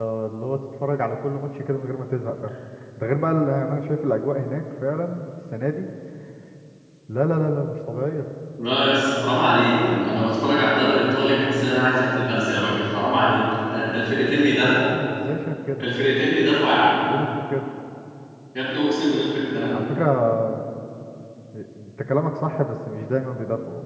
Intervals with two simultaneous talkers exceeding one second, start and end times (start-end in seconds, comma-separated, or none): none